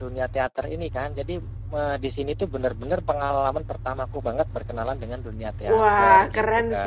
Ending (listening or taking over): taking over